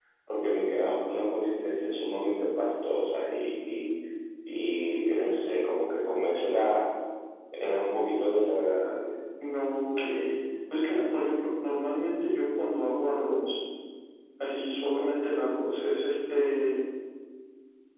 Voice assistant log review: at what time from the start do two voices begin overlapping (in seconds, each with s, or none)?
none